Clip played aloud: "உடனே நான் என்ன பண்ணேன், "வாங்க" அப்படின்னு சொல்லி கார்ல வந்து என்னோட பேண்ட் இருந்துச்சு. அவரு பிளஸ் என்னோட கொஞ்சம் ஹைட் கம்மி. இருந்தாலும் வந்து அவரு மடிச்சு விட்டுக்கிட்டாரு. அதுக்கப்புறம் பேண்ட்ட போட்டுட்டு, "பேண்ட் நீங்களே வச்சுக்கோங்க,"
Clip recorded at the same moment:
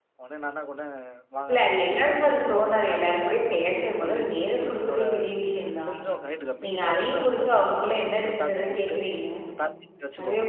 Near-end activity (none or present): present